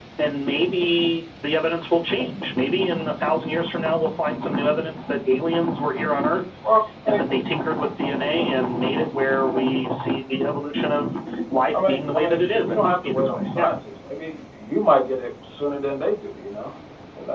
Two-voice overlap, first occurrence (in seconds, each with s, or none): 11.7 s